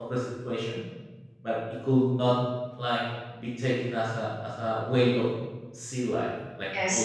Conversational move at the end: taking over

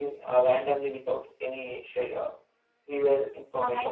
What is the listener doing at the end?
taking over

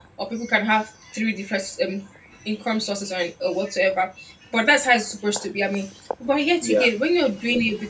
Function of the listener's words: listening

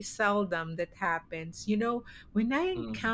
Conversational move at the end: listening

